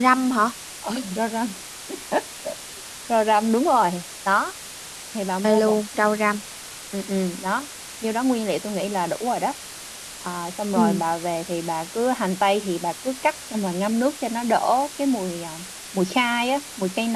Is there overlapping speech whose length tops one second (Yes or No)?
No